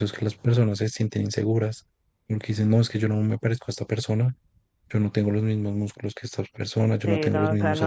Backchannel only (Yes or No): No